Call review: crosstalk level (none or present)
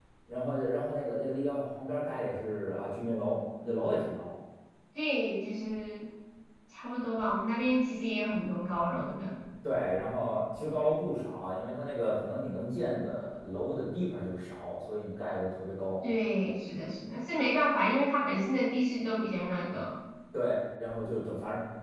none